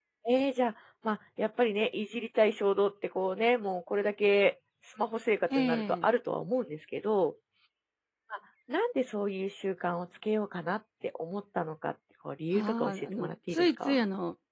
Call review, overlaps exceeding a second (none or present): present